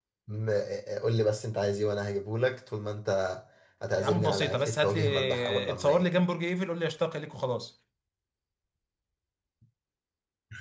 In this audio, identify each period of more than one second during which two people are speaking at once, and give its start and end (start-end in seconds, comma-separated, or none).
4.0-6.0